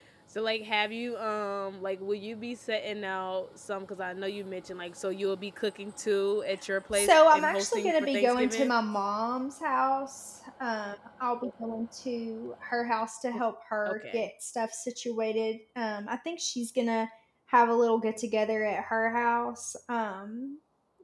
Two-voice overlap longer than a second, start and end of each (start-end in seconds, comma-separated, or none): 6.9-8.7